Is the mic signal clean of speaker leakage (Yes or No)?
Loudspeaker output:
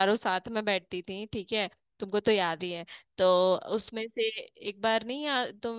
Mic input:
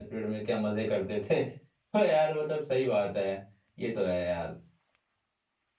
Yes